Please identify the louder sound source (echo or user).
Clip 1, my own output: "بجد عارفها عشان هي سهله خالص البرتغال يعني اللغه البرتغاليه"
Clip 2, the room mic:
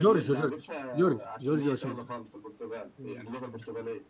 user